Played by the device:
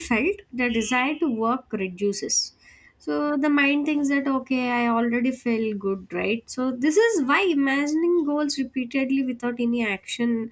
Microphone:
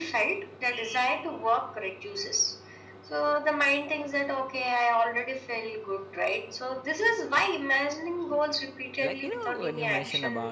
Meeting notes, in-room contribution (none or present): present